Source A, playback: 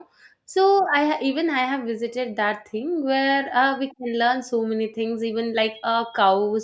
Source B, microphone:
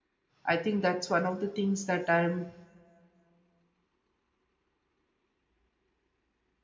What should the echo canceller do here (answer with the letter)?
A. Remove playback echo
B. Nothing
B